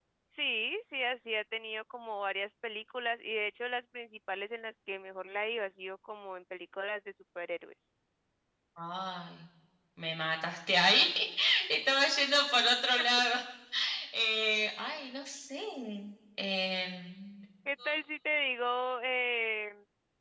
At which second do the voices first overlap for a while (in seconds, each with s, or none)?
none